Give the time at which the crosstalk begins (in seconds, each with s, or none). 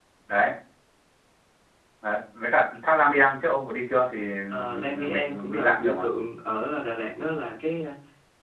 4.5 s